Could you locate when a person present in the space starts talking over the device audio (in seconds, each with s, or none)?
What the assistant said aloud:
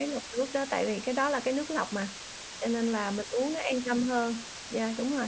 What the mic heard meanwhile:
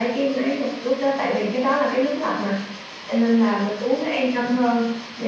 none